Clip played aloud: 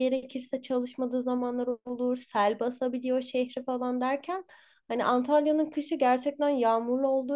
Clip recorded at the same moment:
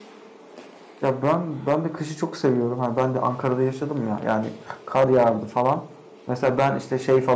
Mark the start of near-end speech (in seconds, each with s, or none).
1.0 s